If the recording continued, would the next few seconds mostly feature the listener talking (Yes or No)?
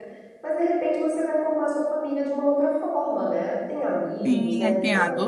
Yes